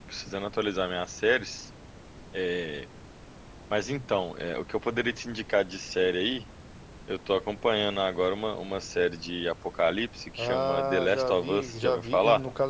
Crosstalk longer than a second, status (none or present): present